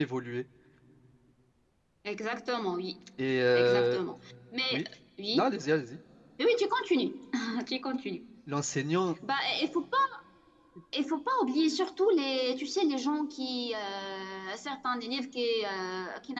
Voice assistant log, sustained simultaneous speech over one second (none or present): none